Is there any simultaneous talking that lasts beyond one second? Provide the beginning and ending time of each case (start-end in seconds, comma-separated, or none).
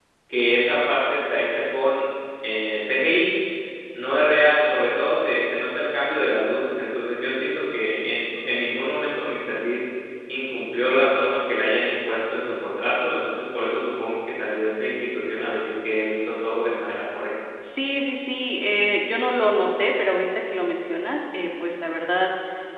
none